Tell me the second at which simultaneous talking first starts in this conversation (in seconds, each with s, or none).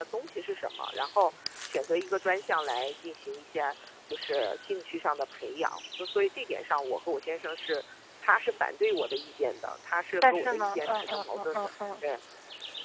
10.2 s